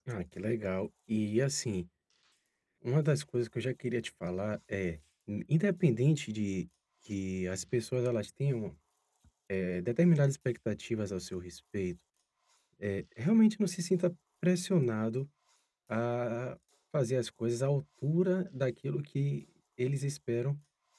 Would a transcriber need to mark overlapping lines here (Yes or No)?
No